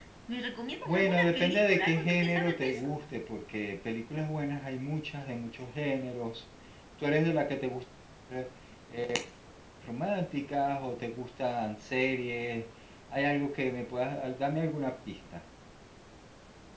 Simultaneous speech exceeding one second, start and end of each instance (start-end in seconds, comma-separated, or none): 0.8-2.9